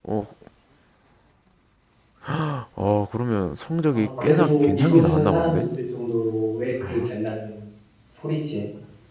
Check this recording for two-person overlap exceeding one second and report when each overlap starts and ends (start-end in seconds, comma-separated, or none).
3.9-5.6